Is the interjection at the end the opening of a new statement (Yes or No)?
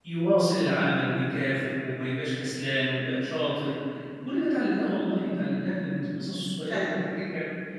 No